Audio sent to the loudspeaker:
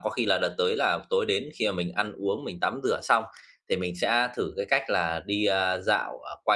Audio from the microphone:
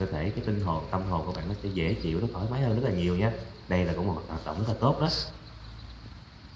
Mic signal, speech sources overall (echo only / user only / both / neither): user only